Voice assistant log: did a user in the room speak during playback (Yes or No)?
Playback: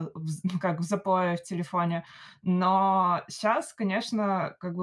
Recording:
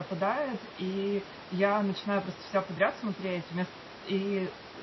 Yes